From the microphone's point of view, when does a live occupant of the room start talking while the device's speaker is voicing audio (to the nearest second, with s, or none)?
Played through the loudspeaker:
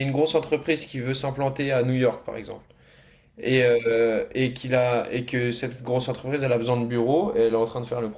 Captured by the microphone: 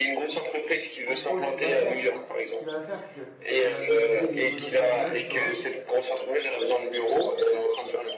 1 s